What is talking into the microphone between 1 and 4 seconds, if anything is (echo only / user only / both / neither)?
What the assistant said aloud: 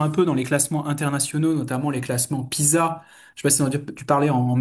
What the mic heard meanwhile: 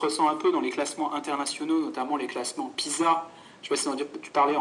echo only